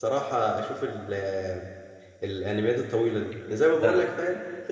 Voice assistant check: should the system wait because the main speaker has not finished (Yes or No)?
Yes